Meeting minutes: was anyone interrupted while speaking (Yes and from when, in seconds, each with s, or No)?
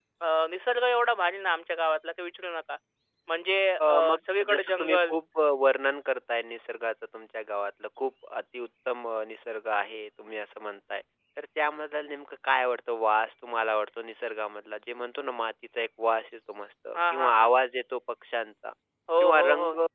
Yes, from 3.9 s